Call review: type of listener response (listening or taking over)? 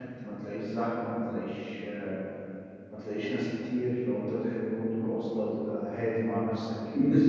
taking over